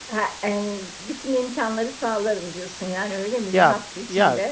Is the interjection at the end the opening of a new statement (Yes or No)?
Yes